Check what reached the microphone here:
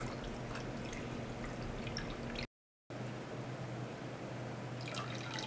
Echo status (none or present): none